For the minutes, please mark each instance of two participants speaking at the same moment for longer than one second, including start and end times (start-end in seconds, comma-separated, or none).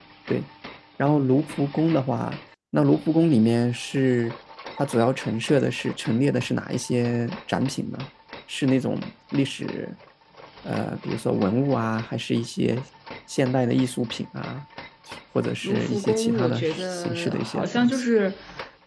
15.6-18.0